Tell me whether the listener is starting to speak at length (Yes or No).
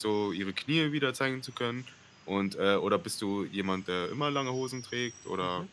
Yes